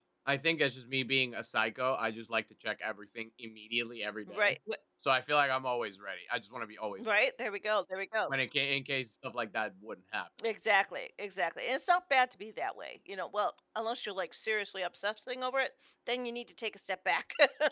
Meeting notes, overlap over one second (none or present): none